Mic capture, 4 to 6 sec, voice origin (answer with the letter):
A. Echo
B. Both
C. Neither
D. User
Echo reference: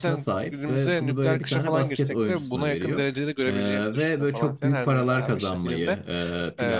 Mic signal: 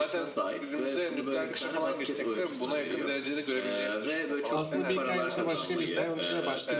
B